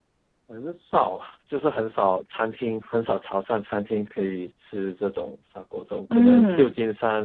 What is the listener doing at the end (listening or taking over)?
listening